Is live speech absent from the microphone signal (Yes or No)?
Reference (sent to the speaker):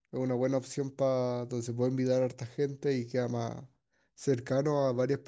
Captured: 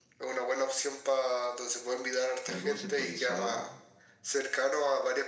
No